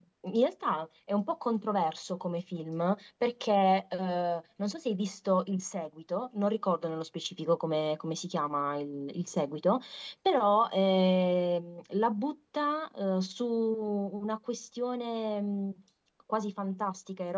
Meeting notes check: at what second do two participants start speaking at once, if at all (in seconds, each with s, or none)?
none